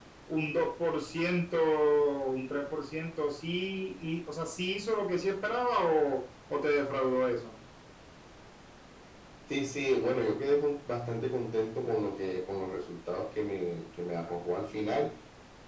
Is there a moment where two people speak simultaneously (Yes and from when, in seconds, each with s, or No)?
No